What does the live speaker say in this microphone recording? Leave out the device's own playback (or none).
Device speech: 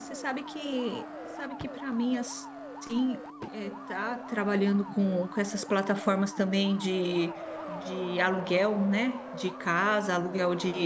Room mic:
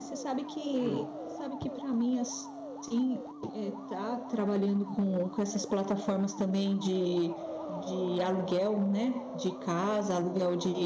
Uhum.